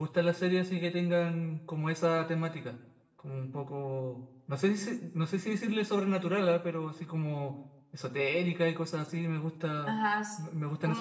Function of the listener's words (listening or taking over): taking over